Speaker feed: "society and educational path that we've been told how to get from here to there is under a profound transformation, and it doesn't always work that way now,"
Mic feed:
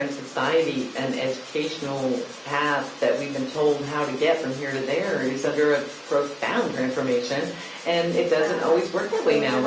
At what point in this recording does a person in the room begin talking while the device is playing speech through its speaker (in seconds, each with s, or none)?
8.4 s